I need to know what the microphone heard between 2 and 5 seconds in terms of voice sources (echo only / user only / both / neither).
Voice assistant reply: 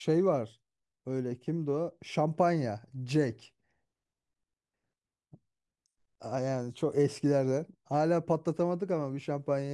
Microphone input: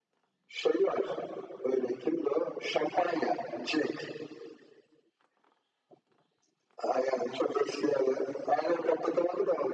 echo only